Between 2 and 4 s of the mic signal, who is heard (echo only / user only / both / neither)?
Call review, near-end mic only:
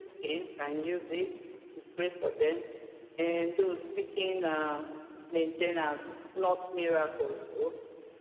echo only